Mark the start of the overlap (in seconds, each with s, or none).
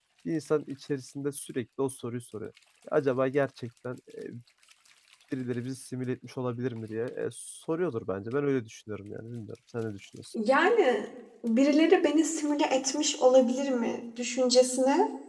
none